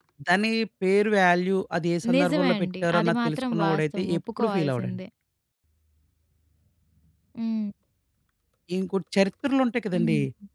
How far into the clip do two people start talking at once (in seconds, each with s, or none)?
2.1 s